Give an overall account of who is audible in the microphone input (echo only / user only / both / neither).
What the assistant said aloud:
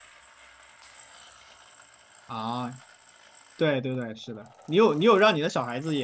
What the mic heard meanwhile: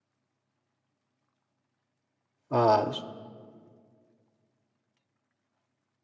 user only